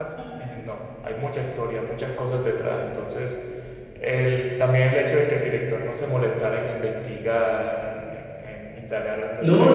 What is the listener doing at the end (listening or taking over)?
taking over